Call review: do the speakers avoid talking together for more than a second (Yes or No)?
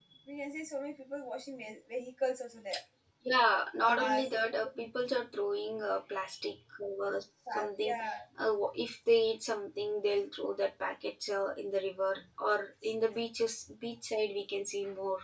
No